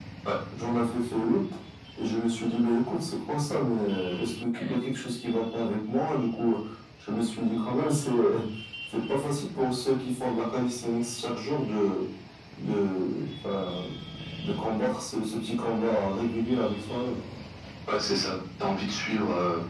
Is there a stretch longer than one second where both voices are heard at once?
No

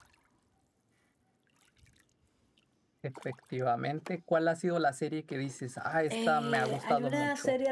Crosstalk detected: Yes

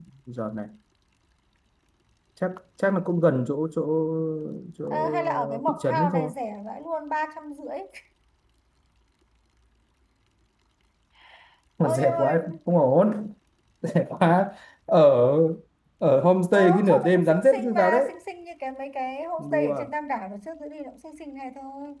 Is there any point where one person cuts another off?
Yes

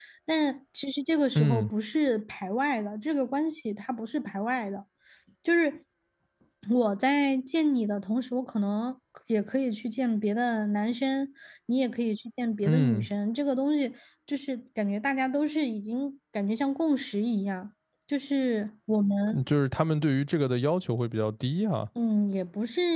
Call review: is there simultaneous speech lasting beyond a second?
No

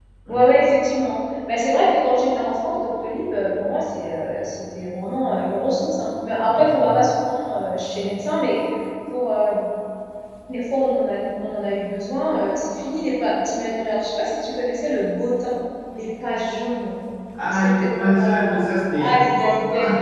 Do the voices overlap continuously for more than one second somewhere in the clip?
Yes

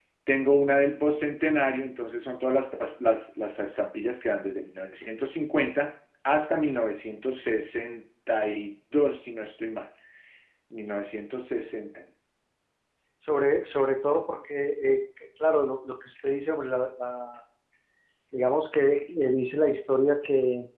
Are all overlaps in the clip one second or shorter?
Yes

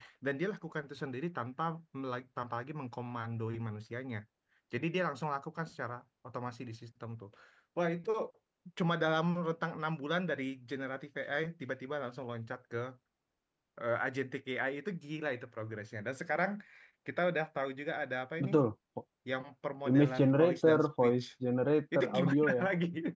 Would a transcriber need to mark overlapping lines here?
Yes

